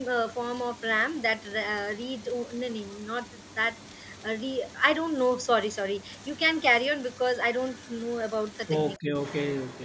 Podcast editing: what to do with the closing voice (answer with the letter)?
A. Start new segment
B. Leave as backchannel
A